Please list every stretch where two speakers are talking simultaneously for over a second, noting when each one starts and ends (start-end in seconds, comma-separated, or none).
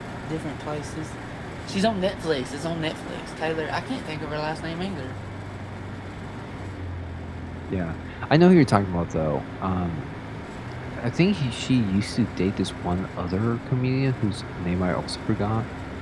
none